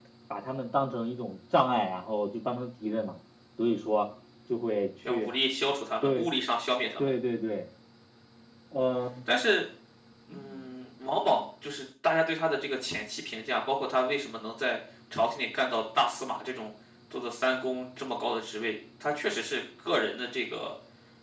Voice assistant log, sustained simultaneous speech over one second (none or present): none